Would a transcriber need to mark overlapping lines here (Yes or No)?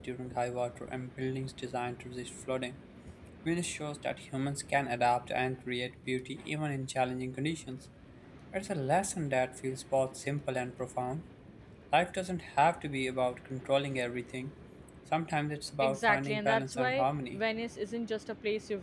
Yes